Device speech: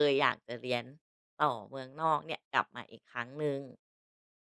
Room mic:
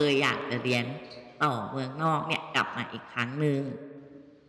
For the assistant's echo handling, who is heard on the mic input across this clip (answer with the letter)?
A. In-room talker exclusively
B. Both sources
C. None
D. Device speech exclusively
D